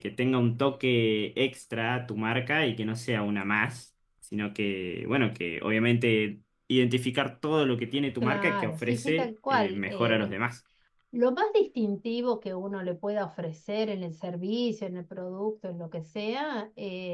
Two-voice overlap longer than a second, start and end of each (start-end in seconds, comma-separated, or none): 8.2-10.2